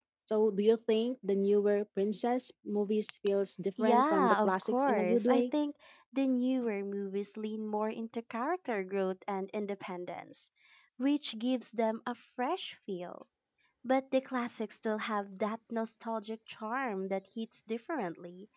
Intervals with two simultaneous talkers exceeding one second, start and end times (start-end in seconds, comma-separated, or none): 3.8-5.4